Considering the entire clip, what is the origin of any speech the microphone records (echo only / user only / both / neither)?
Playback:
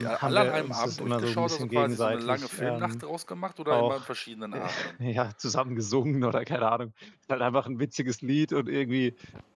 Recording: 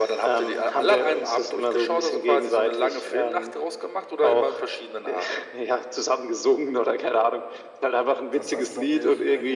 both